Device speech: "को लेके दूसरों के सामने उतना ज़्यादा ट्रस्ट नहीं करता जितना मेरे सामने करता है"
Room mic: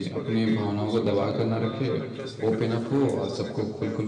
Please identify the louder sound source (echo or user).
user